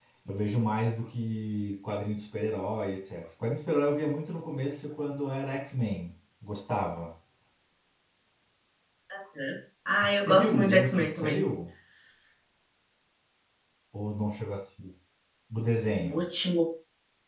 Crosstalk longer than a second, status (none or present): present